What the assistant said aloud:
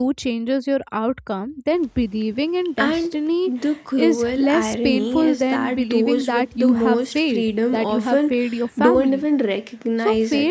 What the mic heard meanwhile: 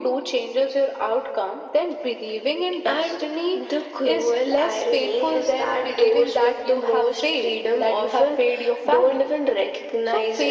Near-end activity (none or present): none